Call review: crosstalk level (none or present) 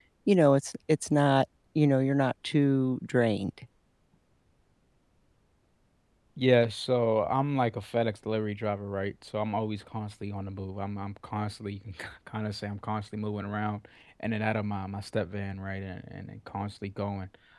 none